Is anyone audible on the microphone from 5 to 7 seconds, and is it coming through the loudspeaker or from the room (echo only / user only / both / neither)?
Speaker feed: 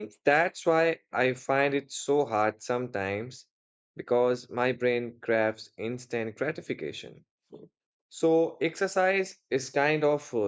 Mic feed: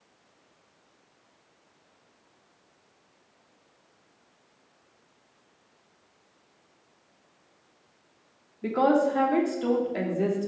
neither